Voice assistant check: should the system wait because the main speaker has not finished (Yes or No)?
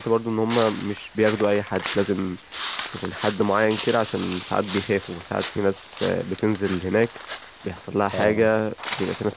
Yes